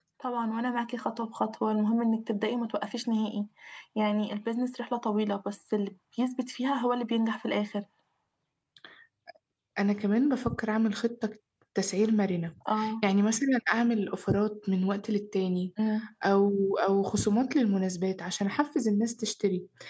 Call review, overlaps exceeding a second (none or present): none